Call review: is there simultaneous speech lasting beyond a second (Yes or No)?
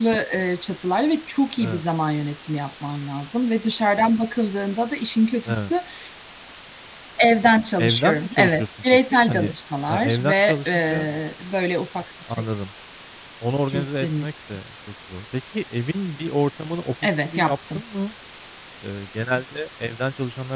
Yes